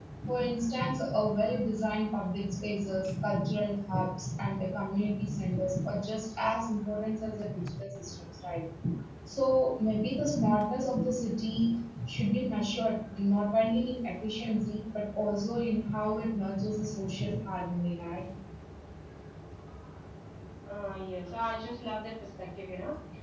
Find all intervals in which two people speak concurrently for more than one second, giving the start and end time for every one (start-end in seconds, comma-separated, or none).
none